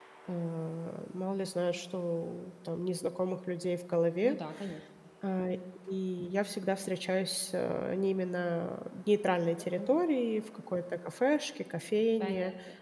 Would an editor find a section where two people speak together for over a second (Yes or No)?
No